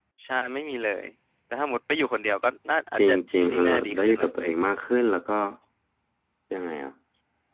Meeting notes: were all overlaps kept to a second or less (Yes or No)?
No